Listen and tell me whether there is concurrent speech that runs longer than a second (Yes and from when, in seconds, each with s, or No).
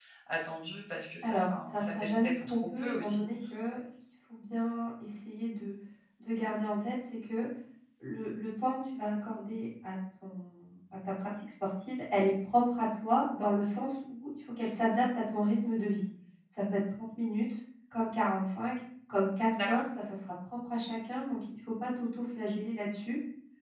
Yes, from 1.2 s